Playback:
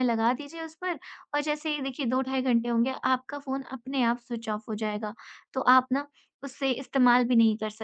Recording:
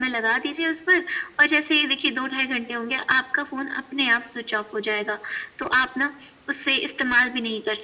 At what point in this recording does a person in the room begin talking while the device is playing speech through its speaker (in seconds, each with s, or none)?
none